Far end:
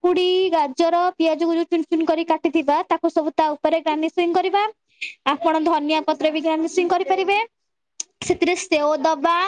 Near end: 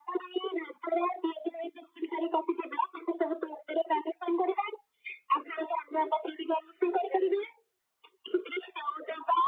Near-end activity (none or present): none